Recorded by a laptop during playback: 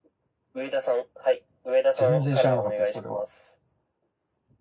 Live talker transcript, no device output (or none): 全然知らなかったです、それは。